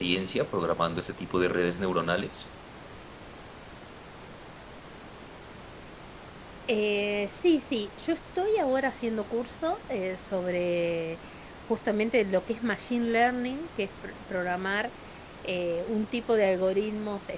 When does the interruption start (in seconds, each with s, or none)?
none